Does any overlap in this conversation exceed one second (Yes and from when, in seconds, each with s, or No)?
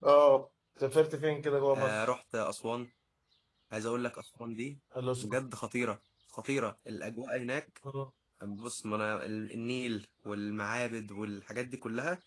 No